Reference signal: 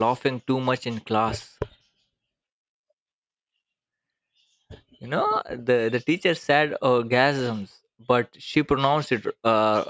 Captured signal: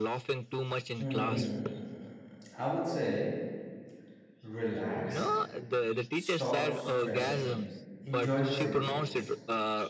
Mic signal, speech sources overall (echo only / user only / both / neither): both